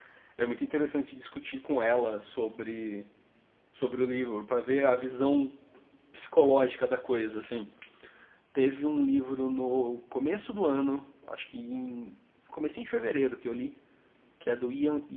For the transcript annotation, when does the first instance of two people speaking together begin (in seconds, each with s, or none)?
none